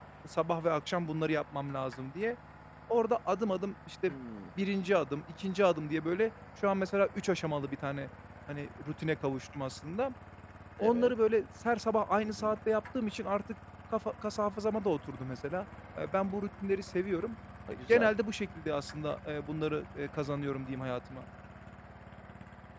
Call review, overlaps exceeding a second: none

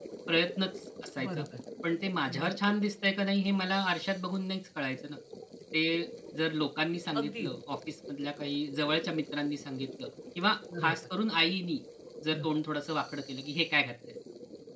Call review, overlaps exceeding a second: none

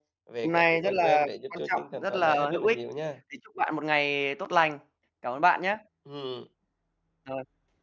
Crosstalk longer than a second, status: present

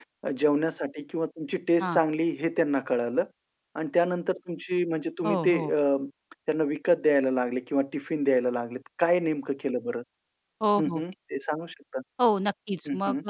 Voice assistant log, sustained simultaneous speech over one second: none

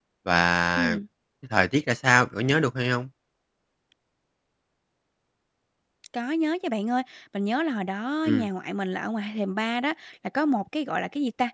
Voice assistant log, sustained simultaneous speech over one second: none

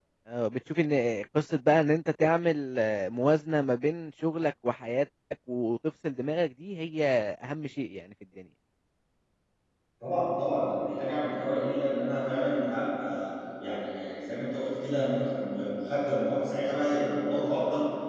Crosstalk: none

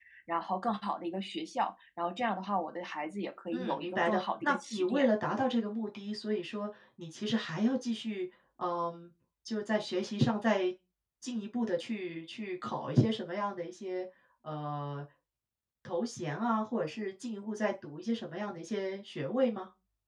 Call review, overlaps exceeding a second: present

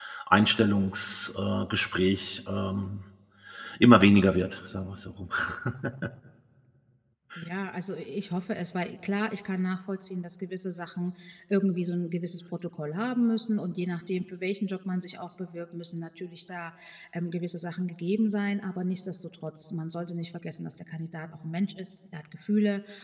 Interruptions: none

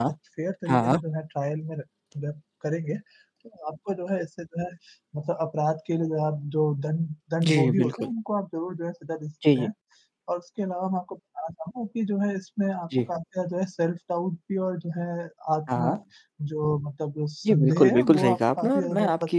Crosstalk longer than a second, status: present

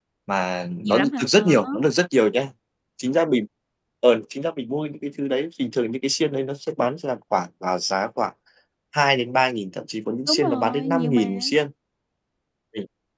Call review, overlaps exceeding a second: present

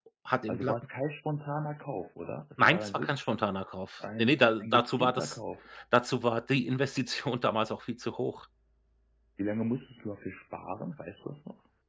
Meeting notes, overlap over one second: present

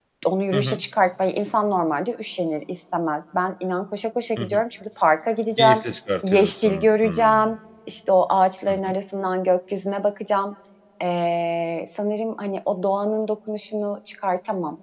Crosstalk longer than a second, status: present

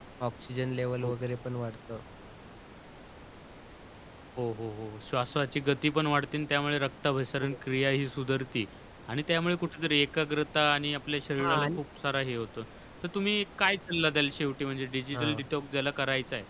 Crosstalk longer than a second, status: none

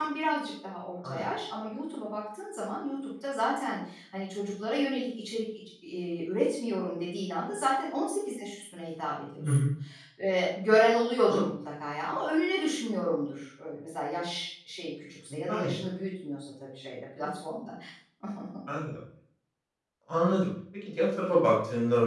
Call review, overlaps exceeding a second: none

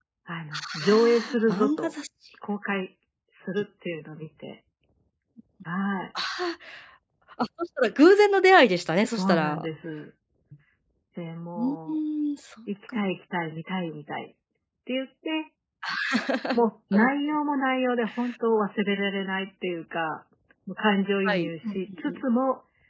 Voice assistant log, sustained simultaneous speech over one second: present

